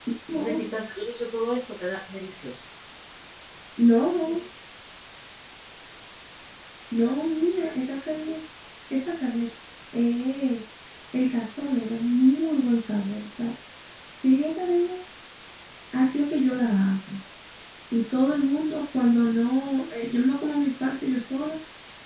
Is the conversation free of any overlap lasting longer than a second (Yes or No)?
Yes